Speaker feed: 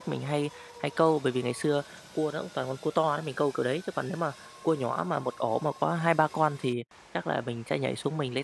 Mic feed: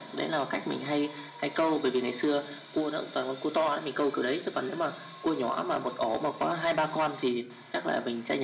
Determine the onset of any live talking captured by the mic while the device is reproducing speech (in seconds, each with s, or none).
none